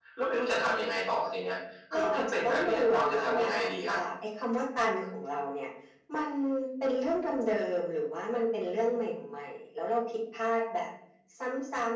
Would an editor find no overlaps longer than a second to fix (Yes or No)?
No